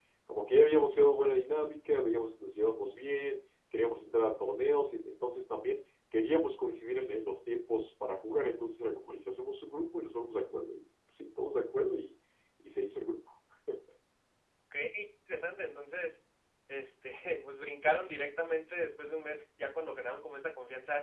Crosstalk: none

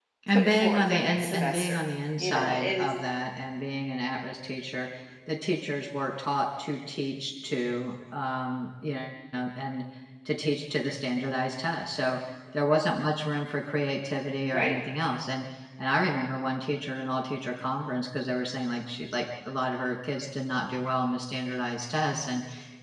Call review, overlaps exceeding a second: present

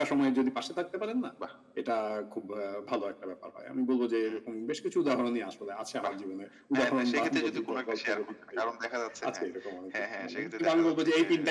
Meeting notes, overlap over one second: present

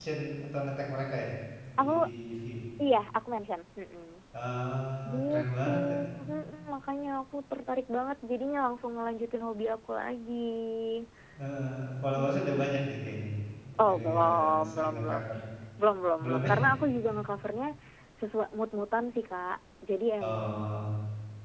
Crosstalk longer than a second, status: present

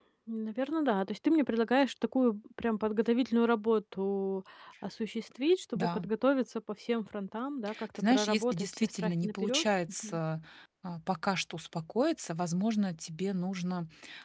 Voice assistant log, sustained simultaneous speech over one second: present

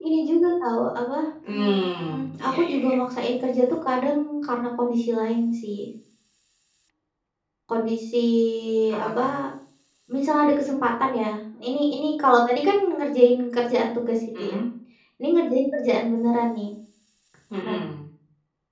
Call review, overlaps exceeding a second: present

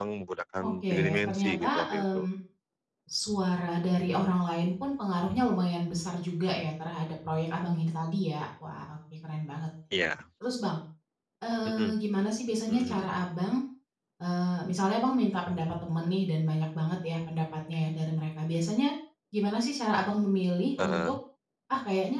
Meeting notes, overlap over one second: present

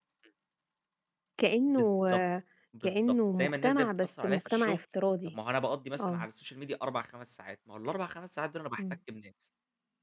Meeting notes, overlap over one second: present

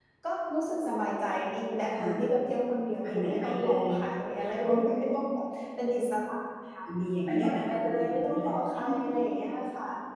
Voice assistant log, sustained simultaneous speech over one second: present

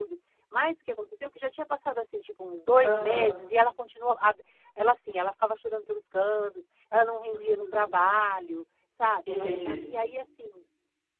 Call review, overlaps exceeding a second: none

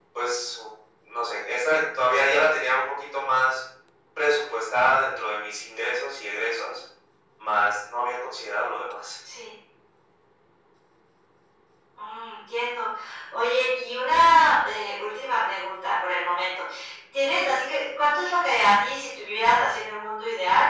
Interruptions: none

